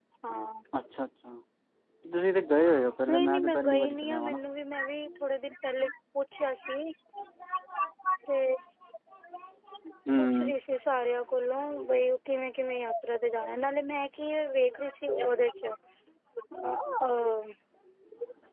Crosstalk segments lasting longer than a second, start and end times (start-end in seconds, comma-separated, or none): 3.1-4.4